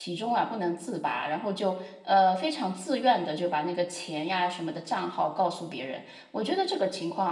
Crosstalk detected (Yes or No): No